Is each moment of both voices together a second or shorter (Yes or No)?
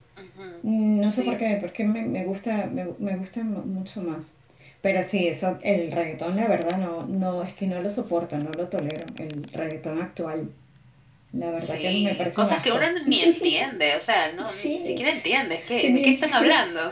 No